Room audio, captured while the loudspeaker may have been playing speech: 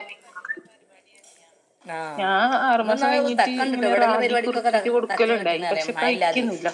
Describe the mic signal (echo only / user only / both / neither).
echo only